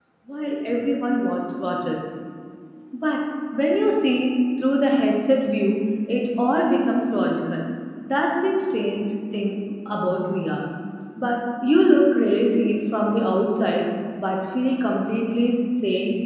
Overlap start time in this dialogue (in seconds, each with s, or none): none